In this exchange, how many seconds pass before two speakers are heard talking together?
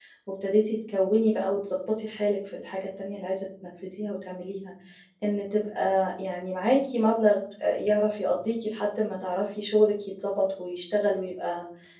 none

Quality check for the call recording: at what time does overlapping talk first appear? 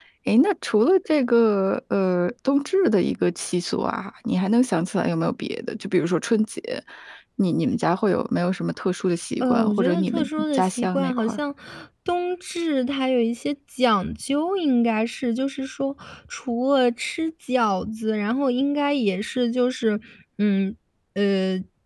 9.4 s

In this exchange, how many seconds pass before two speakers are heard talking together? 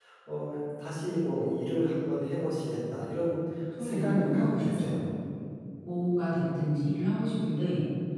3.8 s

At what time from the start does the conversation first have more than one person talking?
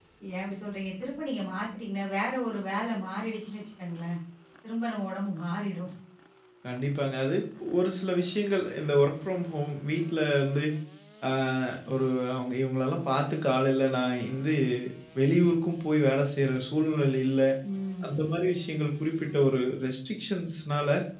none

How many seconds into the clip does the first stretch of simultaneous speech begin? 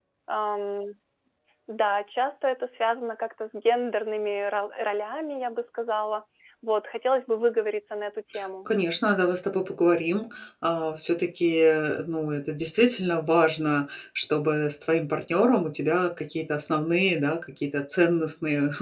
none

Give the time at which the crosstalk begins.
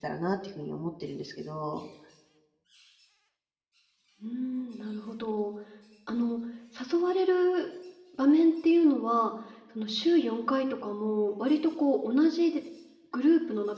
none

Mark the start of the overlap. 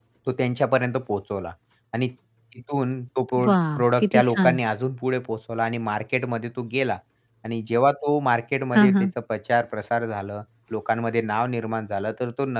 3.4 s

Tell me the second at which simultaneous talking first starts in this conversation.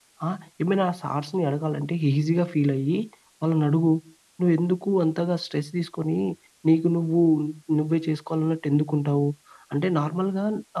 none

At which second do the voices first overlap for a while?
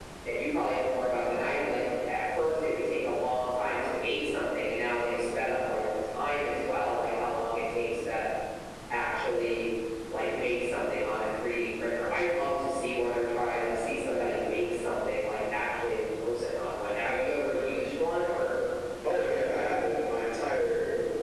none

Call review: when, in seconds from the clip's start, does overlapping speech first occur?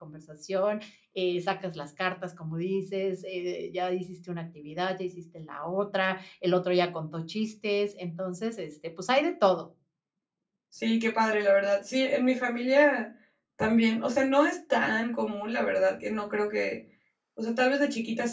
none

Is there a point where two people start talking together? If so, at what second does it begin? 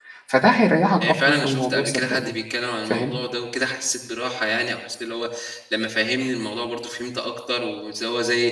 1.0 s

